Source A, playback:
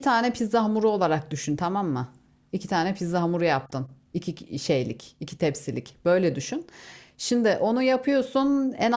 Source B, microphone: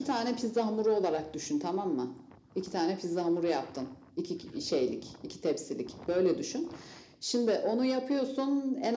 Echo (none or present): present